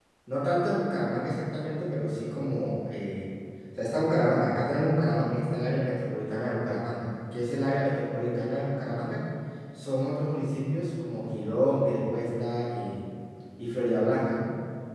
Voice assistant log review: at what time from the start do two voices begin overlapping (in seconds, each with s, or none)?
none